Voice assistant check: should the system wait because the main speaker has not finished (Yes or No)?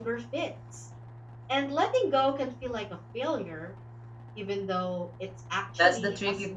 No